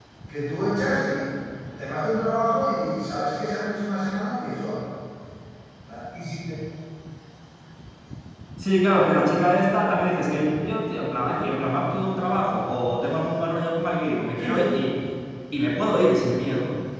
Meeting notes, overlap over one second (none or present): none